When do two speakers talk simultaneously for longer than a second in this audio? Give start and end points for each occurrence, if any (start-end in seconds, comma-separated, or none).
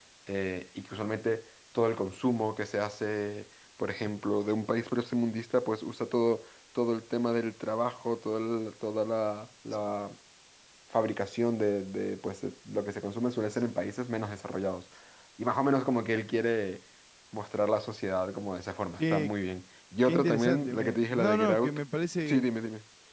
20.1-21.8